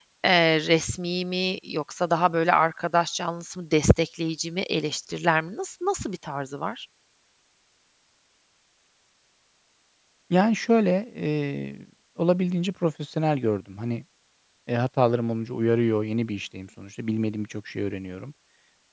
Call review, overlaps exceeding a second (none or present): none